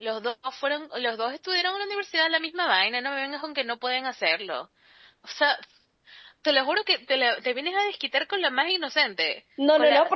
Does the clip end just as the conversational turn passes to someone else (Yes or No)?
Yes